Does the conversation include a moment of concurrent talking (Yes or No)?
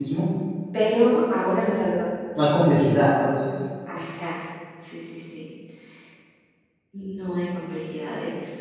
No